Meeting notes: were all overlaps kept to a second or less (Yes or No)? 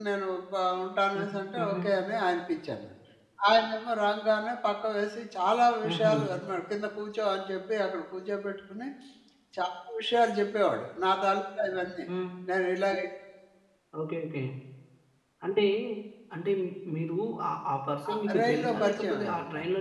No